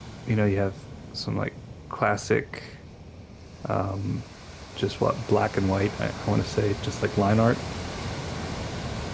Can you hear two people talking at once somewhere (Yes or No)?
No